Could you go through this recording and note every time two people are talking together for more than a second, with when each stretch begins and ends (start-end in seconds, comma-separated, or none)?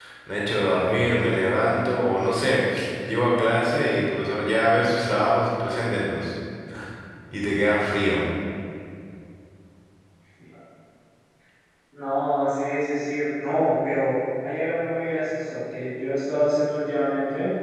none